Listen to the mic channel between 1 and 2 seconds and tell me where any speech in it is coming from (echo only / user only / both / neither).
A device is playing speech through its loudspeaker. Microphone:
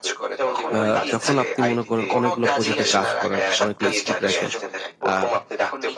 both